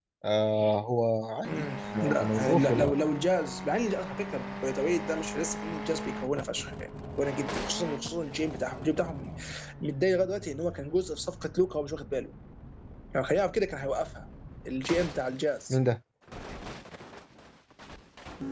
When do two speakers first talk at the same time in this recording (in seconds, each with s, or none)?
1.4 s